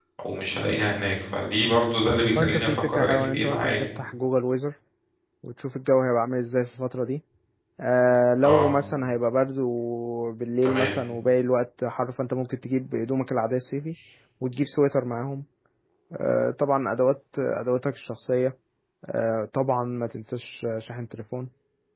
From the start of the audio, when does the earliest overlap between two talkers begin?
2.4 s

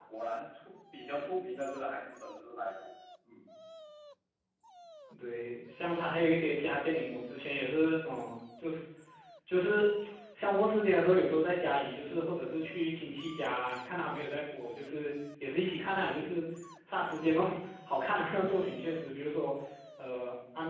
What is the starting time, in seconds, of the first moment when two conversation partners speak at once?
none

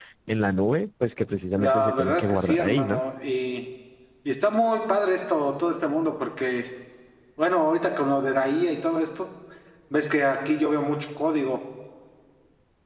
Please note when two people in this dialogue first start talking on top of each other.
1.6 s

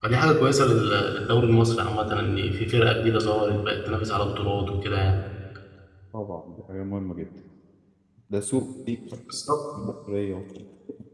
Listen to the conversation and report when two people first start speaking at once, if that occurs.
none

